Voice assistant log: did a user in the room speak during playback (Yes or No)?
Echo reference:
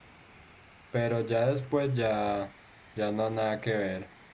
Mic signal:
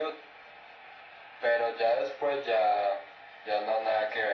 No